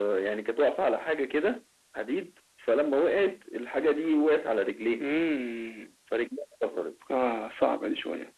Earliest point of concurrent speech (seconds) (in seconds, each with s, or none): none